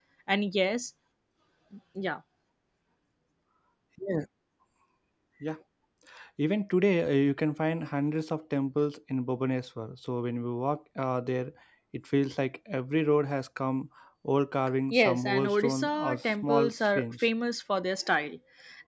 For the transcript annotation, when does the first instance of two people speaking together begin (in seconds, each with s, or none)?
14.9 s